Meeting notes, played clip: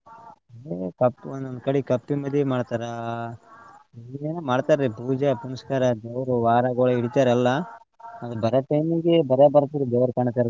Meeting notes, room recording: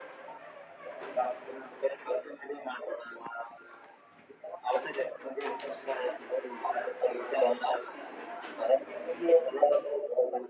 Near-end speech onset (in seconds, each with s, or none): none